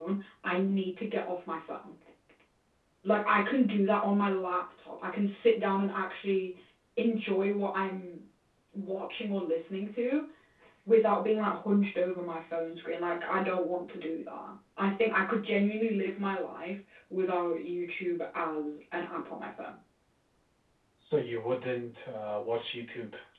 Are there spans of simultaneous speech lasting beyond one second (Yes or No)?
No